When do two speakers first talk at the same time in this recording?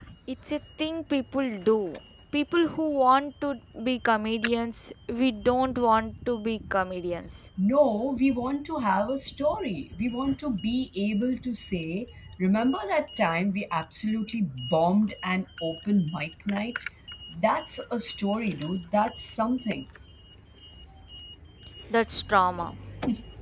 none

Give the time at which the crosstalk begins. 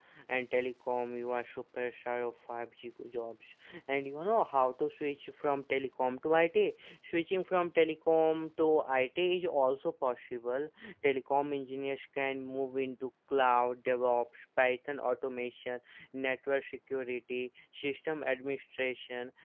none

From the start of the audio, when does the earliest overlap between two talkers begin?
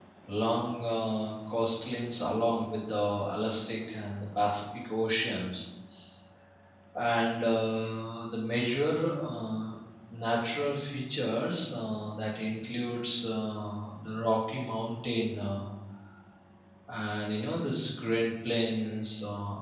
none

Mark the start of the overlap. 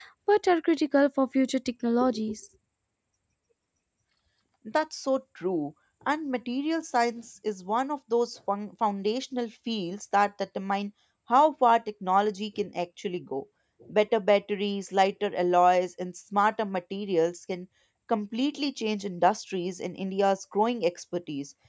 none

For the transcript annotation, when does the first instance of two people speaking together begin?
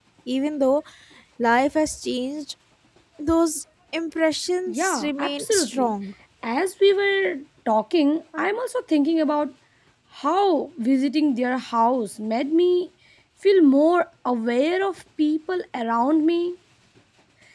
4.7 s

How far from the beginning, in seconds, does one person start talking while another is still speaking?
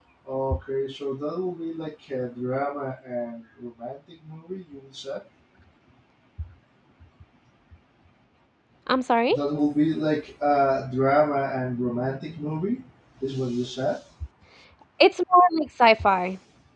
none

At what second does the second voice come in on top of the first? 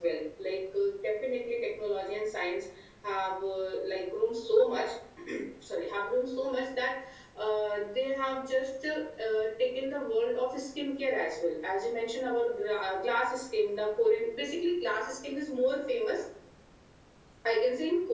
none

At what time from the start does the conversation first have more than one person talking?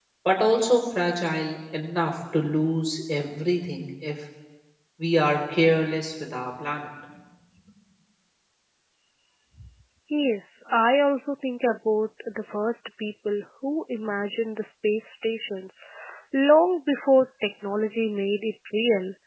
none

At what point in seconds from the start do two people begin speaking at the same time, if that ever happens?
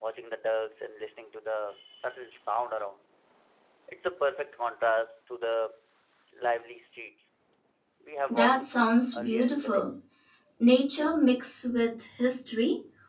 8.3 s

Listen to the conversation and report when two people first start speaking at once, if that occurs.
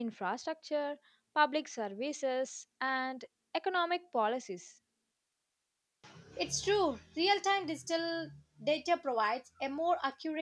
none

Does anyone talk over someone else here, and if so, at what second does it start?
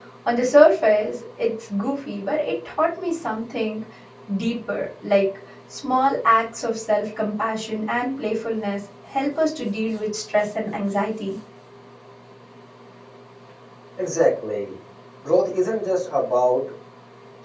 none

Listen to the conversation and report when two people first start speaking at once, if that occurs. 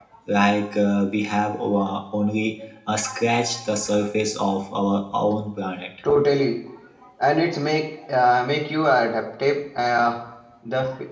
none

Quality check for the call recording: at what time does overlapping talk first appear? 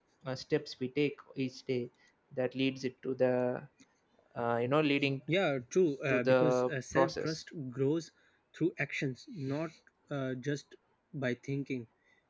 6.1 s

